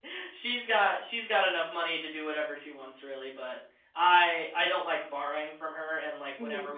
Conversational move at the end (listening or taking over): listening